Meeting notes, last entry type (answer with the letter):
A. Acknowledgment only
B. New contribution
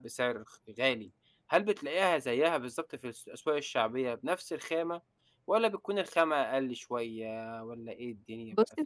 B